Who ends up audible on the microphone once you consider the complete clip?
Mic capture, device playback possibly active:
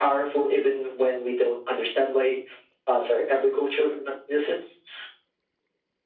echo only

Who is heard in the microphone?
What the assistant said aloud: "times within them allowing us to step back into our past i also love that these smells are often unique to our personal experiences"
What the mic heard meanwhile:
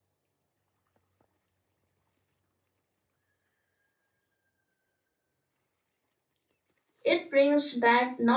user only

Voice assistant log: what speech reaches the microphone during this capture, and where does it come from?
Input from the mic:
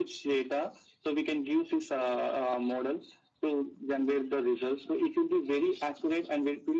echo only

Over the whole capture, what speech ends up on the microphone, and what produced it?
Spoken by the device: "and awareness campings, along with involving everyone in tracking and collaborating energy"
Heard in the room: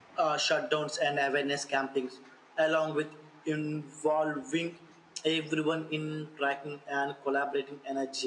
echo only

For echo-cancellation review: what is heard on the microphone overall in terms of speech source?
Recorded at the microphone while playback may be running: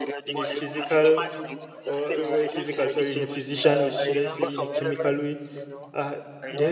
both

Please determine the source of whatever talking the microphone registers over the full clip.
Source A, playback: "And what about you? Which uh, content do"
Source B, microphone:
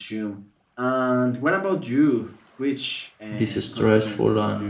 both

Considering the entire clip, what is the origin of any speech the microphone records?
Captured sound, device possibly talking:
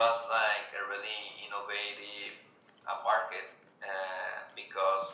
echo only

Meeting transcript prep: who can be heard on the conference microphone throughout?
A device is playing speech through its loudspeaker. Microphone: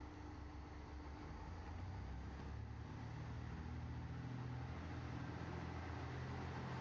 neither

